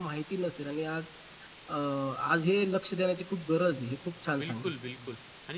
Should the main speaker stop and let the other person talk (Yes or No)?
Yes